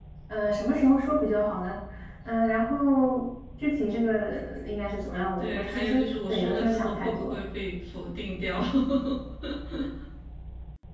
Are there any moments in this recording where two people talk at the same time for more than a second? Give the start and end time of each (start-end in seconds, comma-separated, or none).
5.4-7.4